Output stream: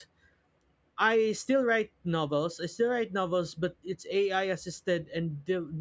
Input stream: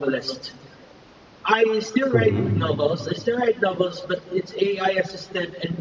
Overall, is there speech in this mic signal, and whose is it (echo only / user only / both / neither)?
both